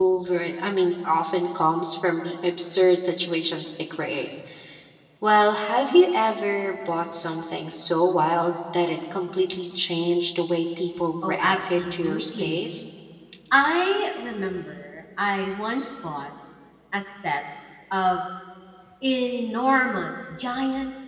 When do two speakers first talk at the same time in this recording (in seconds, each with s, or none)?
11.2 s